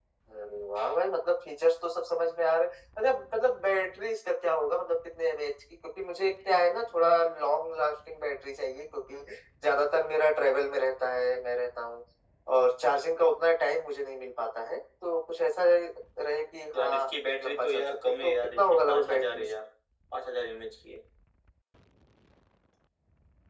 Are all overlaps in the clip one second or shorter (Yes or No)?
No